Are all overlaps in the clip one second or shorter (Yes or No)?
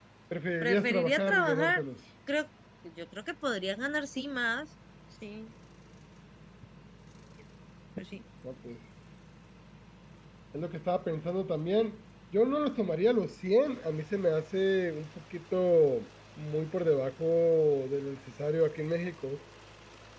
No